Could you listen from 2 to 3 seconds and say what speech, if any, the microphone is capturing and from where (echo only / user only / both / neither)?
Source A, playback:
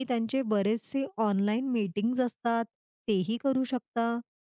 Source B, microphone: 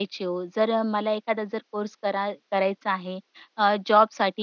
user only